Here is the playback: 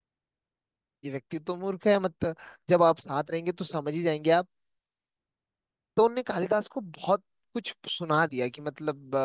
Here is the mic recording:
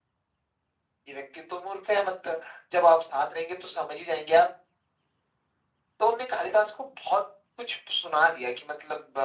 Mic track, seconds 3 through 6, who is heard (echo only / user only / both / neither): echo only